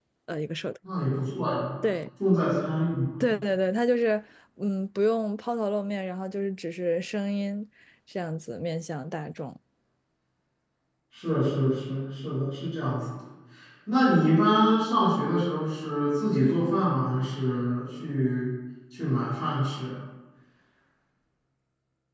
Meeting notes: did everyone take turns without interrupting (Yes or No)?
Yes